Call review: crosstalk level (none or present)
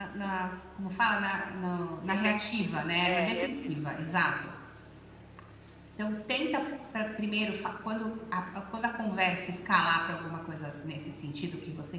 present